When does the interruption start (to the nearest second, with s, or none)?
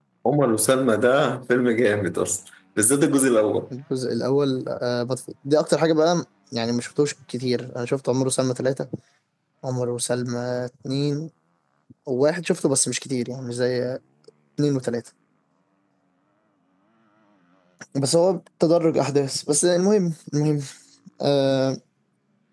none